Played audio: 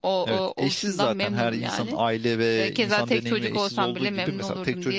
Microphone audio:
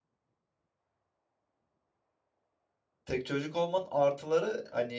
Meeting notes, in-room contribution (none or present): present